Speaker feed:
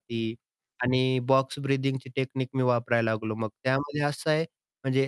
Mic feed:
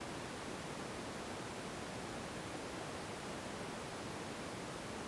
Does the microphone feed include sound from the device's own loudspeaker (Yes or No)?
No